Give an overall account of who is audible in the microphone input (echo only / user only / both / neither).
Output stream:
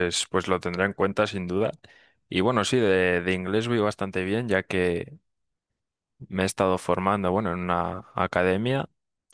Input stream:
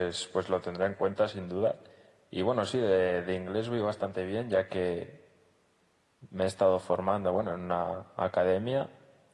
echo only